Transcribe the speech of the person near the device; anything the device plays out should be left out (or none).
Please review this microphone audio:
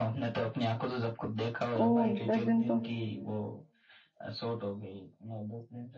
ओ दस दिन तो